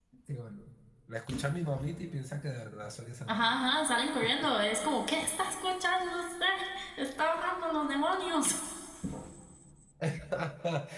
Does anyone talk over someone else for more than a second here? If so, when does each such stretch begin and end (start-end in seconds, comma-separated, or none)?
none